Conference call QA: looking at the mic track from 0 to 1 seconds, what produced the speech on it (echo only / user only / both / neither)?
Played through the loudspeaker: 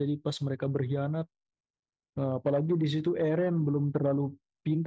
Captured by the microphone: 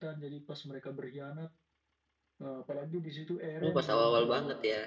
echo only